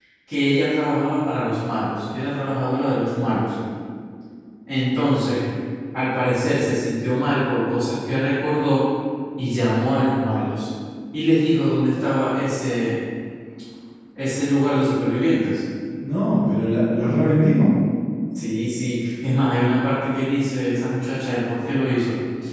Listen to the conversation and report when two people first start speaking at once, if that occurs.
none

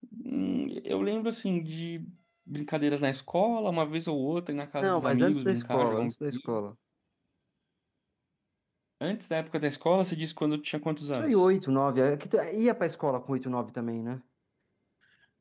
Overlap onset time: 4.8 s

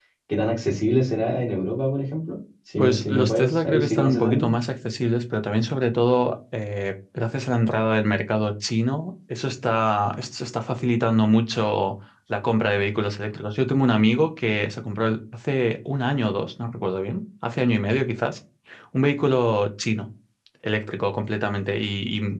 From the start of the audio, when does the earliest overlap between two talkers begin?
2.8 s

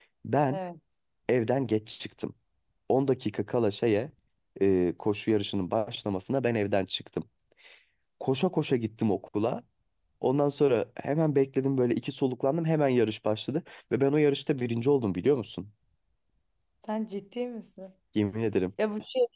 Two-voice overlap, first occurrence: none

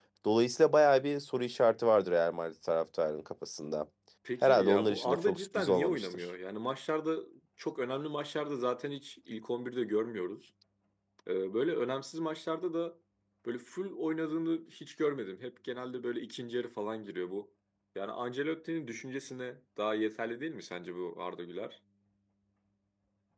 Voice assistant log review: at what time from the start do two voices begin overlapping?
4.4 s

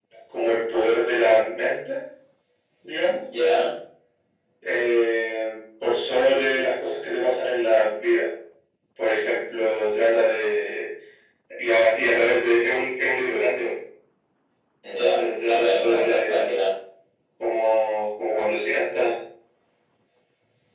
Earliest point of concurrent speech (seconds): 15.2 s

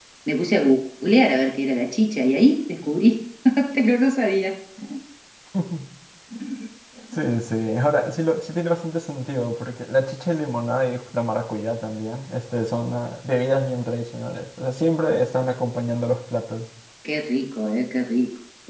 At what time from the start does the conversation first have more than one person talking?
none

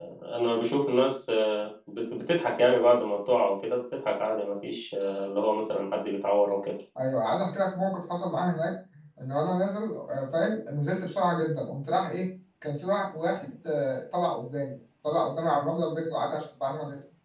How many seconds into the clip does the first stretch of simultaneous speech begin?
none

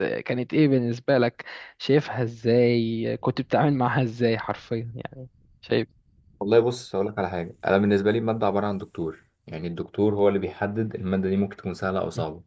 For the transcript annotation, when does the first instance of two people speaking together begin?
none

